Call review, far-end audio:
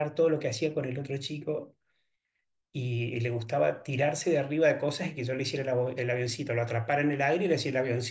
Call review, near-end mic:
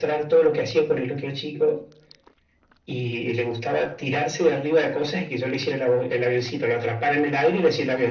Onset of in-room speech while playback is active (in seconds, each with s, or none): none